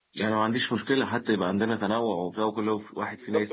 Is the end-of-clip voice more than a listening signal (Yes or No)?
Yes